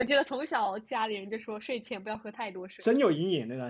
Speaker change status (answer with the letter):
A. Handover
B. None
A